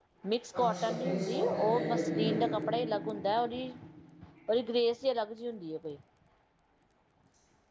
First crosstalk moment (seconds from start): 0.6 s

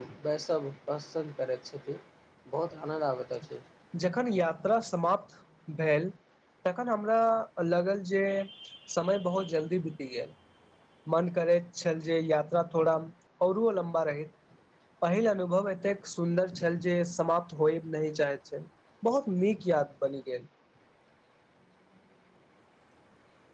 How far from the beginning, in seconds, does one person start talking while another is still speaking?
none

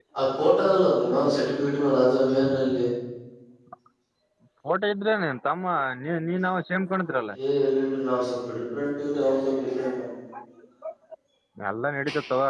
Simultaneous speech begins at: none

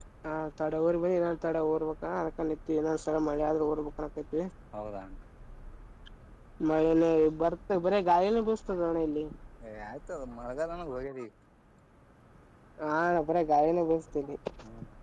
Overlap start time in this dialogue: none

